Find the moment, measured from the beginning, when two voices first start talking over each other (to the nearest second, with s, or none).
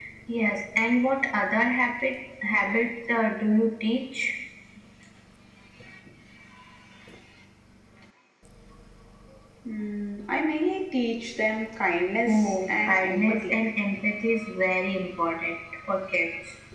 12 s